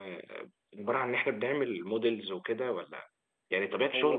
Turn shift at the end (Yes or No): No